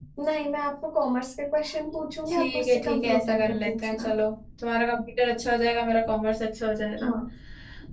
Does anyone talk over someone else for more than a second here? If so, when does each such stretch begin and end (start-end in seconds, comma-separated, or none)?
2.3-4.1